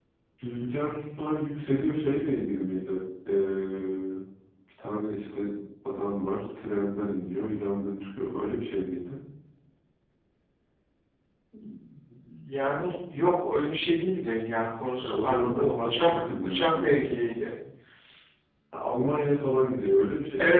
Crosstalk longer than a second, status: present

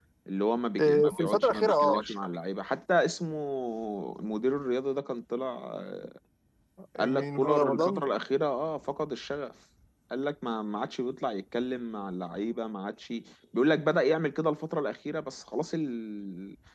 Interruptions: present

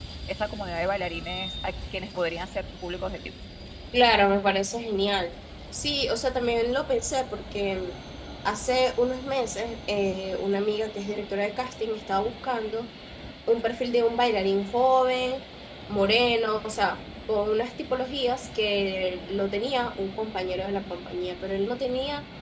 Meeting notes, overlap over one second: none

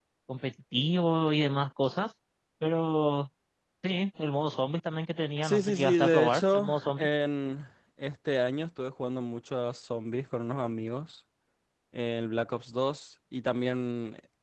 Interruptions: present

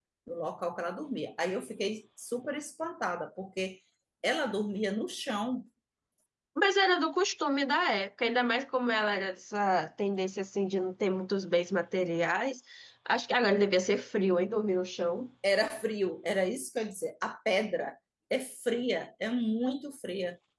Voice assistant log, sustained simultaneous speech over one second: none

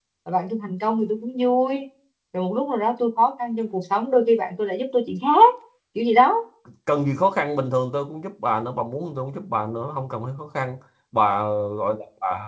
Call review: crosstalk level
none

